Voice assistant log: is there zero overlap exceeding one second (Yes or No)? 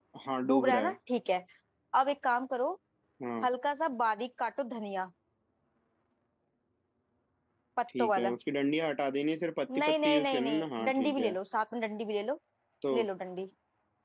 No